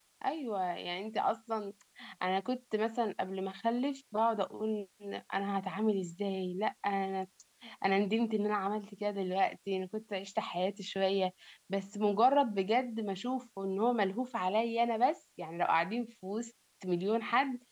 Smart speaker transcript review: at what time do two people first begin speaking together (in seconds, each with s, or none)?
none